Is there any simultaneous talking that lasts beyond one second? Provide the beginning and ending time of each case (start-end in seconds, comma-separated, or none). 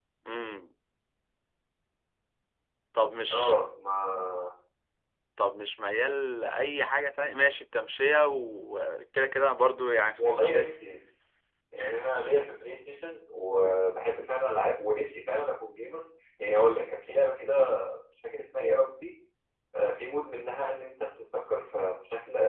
none